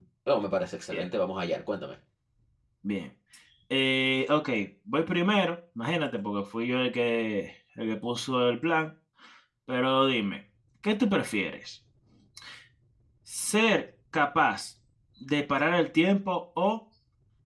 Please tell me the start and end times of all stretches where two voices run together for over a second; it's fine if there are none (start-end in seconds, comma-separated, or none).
none